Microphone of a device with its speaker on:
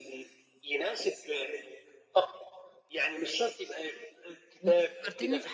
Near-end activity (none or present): present